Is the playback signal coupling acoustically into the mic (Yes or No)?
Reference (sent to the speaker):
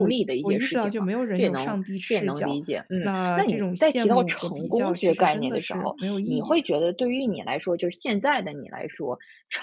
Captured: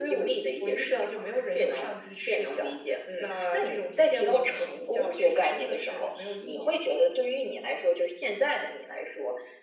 Yes